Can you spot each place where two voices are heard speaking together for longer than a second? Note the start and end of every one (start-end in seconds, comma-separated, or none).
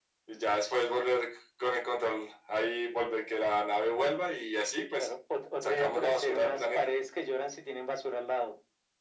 5.6-6.9